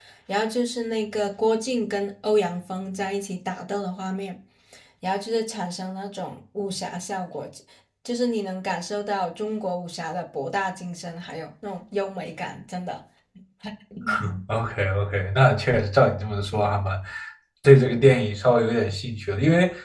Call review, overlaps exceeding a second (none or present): none